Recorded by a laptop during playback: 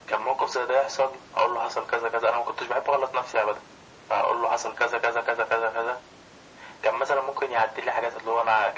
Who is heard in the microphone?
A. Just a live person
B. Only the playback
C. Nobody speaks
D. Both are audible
B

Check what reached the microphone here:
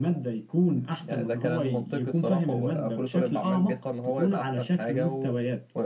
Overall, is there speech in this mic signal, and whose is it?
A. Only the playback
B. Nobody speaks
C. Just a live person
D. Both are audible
A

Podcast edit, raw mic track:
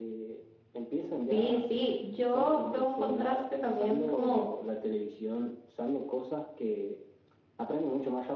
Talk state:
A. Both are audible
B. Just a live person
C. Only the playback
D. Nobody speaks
A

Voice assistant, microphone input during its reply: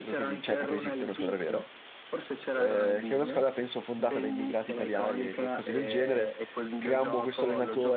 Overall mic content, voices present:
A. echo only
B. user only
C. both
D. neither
C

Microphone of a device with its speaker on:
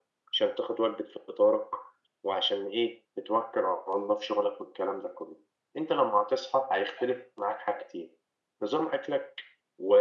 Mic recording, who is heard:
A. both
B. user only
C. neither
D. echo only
D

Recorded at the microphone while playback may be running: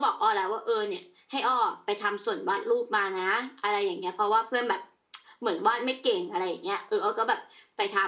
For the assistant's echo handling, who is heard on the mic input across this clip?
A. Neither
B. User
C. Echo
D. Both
C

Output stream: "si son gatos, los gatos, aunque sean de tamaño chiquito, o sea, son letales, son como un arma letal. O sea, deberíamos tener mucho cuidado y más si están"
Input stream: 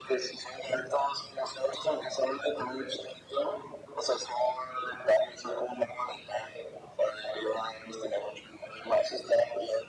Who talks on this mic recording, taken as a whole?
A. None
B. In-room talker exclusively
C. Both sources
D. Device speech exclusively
D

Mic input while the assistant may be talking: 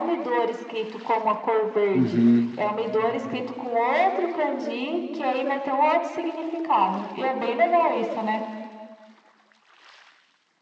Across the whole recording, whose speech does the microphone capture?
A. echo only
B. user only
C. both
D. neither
C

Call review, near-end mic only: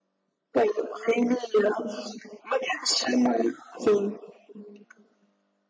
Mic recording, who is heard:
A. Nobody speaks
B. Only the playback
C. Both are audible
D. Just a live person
B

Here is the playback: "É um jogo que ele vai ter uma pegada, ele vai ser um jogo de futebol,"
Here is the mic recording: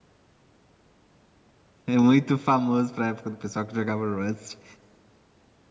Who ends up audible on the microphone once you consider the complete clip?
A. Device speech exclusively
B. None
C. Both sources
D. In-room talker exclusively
D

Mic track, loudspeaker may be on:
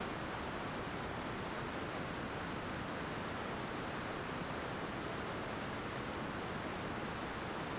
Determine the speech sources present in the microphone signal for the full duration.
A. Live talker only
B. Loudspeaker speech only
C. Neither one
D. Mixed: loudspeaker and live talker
C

